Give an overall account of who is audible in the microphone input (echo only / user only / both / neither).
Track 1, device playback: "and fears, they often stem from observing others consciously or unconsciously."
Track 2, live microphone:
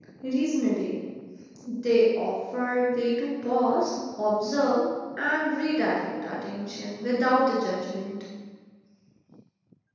user only